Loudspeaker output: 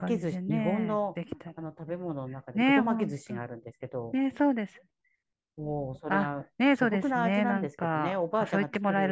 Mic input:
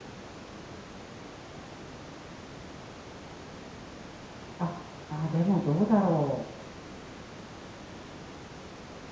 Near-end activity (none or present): present